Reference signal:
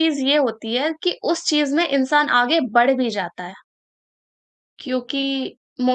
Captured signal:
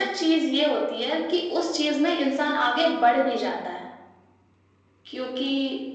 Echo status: present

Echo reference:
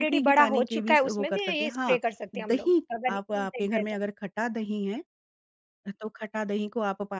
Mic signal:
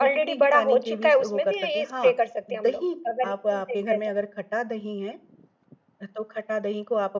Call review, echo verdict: present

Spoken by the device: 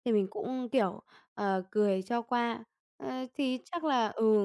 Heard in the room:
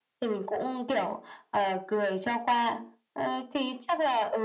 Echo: present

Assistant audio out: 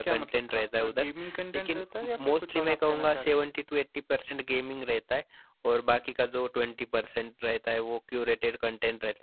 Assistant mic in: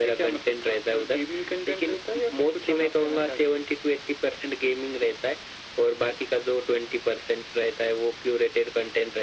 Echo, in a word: present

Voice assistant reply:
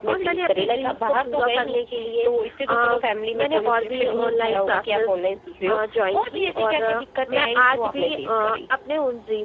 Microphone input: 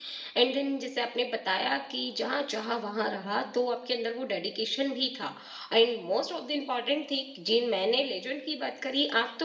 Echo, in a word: none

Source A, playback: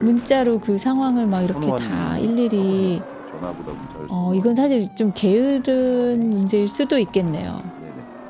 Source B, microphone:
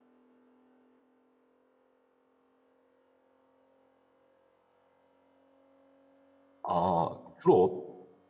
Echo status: none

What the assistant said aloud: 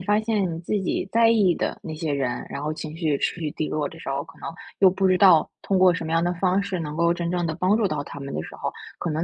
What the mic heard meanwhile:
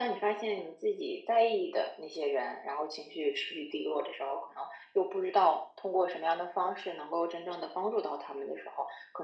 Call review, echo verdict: present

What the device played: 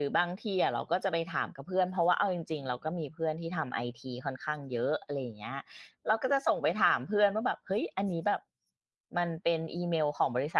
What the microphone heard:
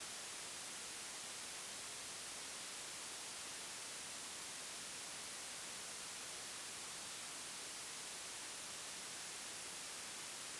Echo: none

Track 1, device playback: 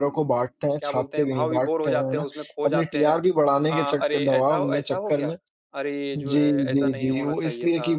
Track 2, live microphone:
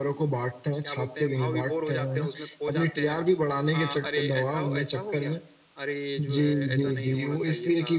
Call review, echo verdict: present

